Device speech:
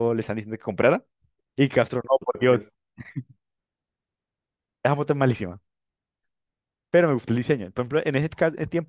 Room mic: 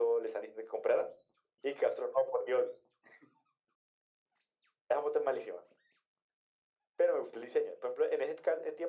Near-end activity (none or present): none